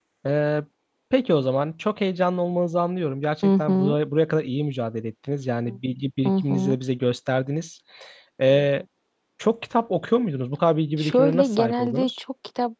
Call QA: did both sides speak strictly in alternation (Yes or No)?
No